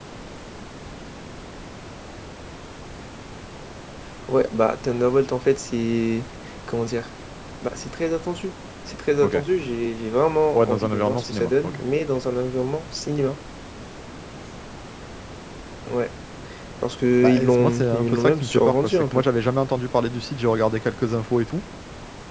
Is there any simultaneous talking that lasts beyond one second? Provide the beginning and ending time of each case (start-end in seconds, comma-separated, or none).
10.5-11.8, 17.2-19.2